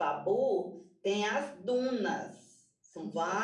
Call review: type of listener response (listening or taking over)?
listening